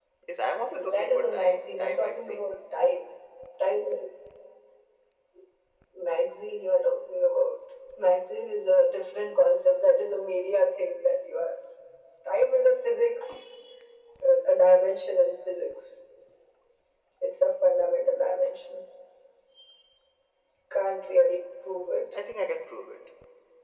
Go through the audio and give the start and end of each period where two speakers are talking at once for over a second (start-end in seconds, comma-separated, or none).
0.7-2.4